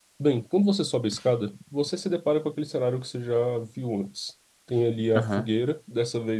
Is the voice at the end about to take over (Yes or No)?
No